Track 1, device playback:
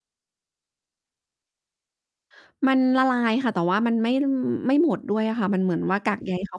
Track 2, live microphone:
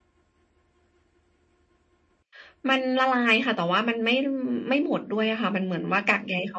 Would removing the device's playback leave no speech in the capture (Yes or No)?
Yes